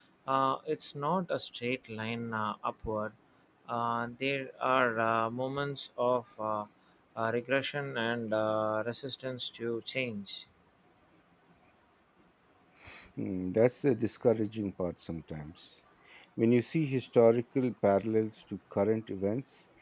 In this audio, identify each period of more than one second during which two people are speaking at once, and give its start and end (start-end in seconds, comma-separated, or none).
none